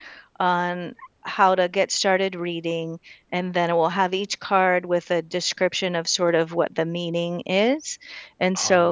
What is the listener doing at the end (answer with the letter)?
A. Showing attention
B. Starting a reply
A